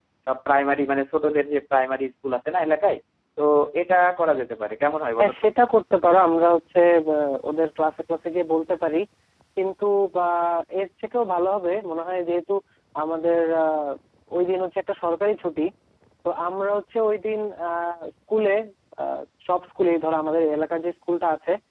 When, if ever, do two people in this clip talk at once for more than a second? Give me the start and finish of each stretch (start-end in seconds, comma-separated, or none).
none